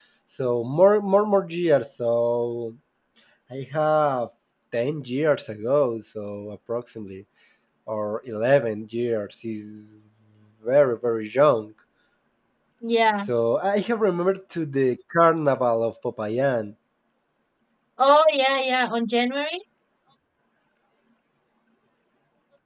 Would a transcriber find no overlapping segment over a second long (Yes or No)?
Yes